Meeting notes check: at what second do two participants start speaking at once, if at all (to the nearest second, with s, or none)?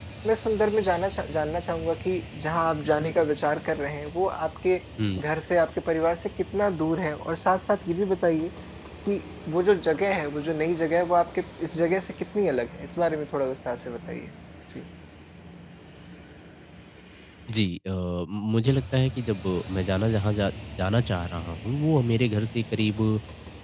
none